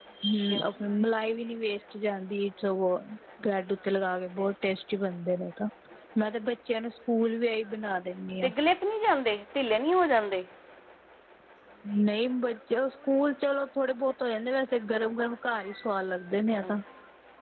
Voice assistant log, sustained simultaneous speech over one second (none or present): none